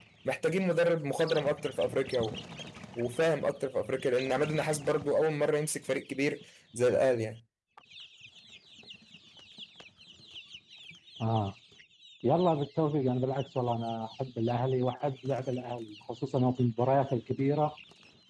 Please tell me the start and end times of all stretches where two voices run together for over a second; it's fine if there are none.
none

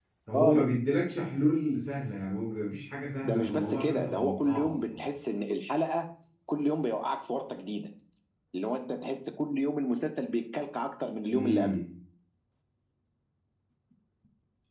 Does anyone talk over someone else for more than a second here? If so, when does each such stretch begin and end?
3.2-5.0

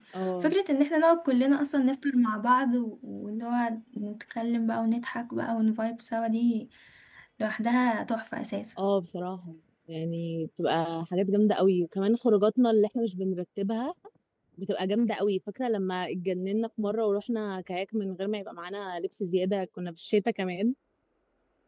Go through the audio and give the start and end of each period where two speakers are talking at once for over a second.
none

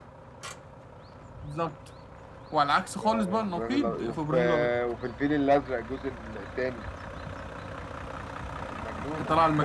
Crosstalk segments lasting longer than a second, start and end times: 3.0-4.7

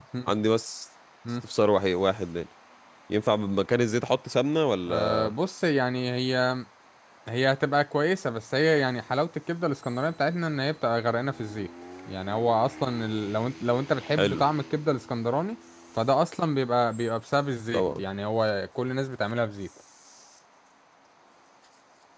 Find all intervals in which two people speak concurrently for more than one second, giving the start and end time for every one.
none

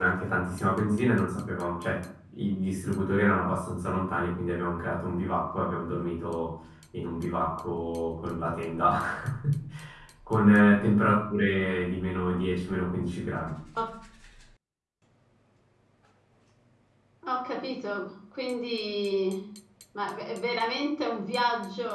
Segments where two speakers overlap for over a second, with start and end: none

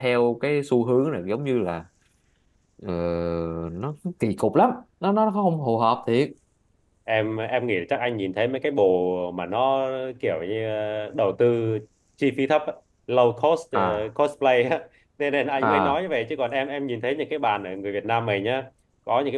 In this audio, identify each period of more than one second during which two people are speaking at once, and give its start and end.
none

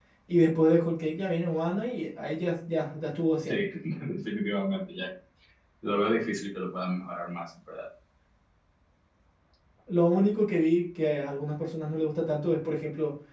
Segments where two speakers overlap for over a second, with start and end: none

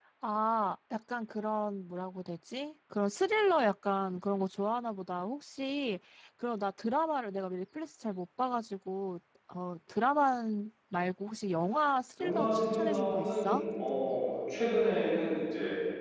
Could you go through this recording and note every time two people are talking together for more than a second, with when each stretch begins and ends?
12.2-13.6

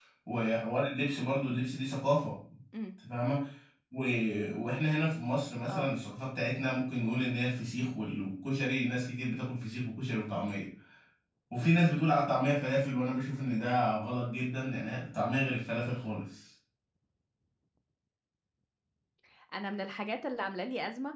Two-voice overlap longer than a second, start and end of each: none

